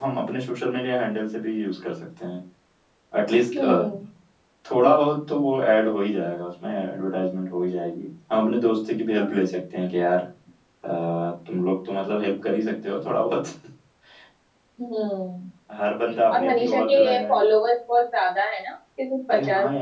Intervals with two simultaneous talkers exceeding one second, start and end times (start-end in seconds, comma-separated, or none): 16.3-17.5